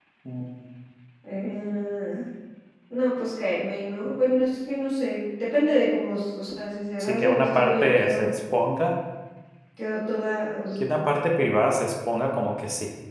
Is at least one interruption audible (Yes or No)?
Yes